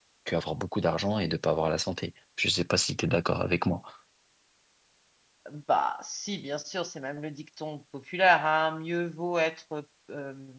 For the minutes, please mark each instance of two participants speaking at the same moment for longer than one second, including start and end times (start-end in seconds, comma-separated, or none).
none